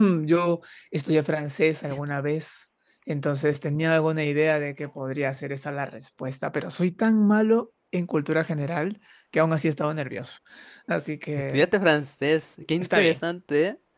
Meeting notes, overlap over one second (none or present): none